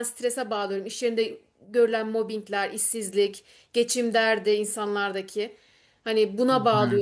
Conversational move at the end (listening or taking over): listening